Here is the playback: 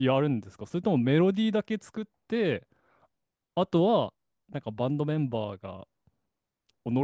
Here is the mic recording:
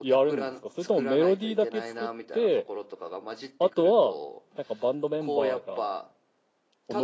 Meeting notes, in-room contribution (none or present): present